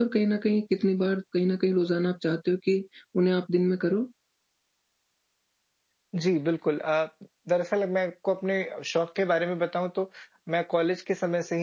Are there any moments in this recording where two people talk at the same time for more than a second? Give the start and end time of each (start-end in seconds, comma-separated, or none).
none